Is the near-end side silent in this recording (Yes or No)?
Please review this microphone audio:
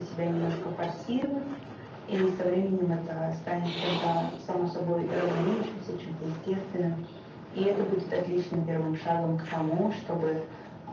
Yes